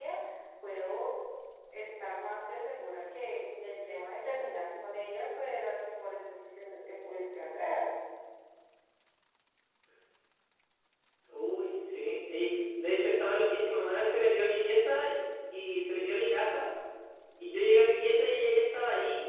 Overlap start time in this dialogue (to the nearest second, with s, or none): none